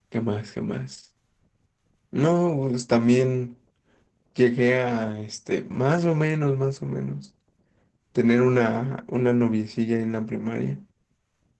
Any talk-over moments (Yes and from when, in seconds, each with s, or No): No